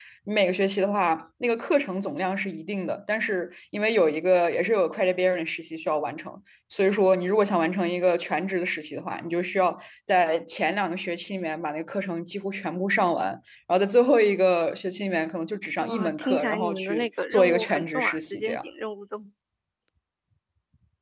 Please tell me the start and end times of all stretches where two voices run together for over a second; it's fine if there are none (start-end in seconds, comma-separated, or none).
15.8-18.6